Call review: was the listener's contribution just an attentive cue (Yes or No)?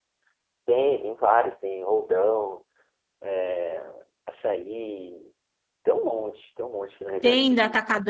No